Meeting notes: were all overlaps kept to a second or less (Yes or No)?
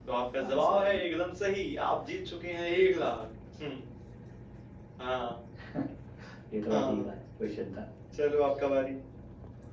Yes